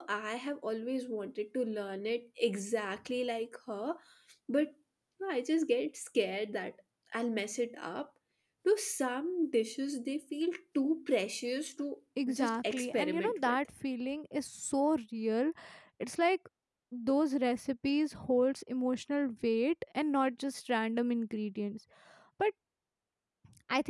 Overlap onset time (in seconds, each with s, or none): 12.2 s